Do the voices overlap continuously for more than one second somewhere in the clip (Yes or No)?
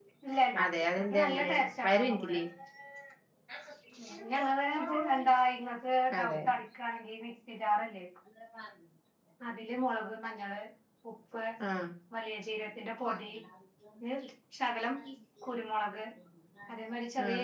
Yes